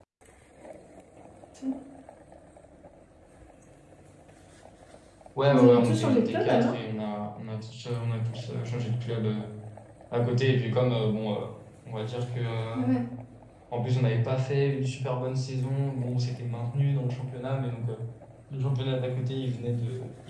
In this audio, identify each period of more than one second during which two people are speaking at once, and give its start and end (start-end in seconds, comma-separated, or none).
5.5-6.7